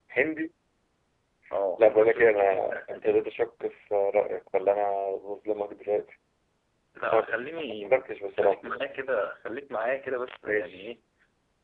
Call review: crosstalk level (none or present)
present